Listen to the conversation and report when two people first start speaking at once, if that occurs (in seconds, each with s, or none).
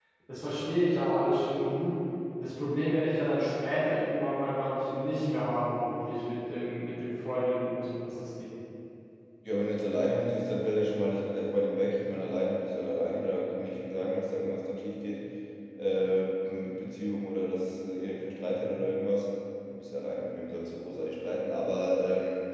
none